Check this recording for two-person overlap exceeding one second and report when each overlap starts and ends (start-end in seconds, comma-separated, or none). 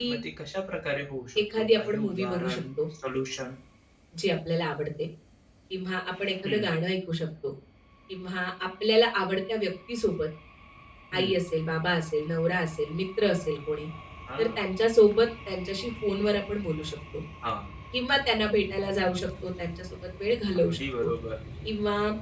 1.6-2.8